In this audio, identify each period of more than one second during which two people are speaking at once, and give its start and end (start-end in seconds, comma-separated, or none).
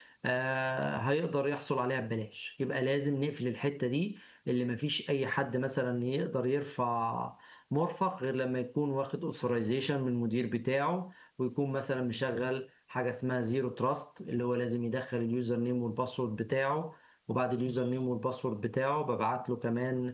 none